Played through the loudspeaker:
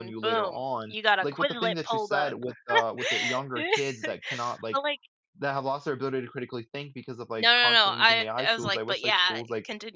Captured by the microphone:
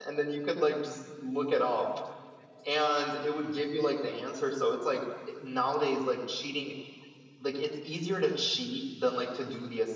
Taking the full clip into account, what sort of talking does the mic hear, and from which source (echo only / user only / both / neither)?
user only